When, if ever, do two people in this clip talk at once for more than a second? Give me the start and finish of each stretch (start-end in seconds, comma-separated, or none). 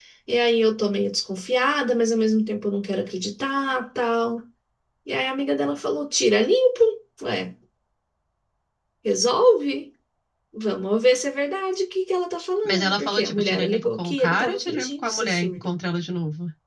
12.6-15.8